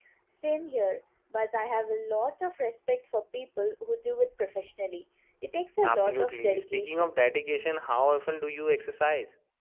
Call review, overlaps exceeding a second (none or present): present